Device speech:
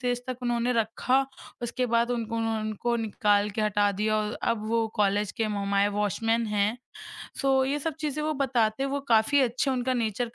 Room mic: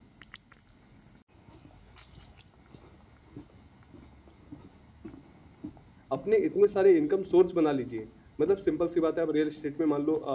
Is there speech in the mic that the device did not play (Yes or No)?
Yes